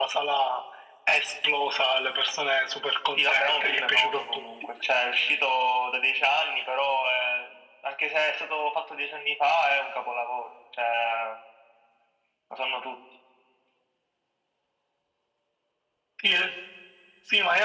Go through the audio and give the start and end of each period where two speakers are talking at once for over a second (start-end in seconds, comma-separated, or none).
3.1-4.4